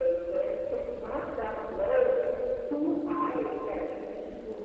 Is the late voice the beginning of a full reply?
No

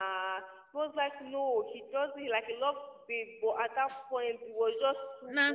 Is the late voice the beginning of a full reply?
No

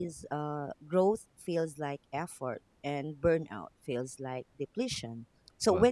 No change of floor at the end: Yes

